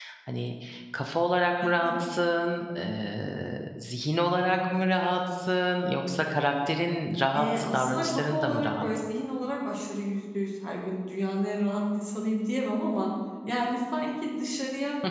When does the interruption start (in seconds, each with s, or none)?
7.3 s